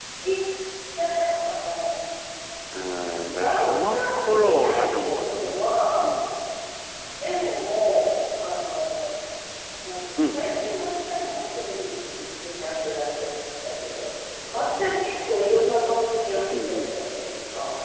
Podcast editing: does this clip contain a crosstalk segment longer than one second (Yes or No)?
Yes